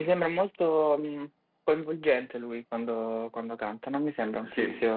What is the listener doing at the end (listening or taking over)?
listening